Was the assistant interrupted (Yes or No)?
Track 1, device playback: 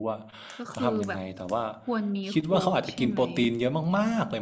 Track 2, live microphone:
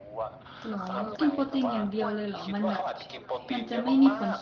Yes